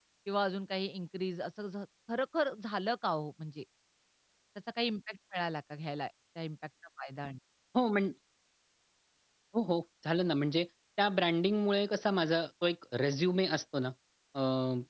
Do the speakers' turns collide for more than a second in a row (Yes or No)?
No